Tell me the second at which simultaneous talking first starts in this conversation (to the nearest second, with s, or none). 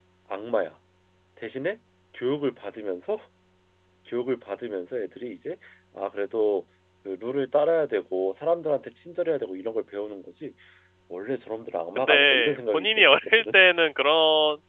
12 s